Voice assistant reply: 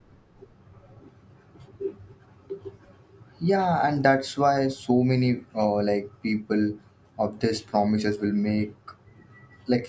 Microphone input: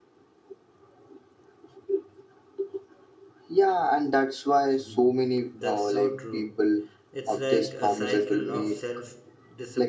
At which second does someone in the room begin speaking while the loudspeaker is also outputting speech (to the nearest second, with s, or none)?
5 s